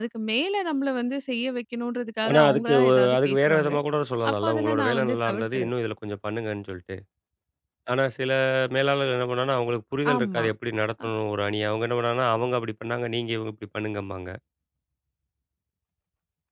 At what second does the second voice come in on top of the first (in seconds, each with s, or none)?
2.3 s